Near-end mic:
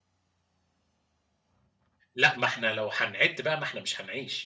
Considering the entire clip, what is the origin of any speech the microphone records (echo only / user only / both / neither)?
user only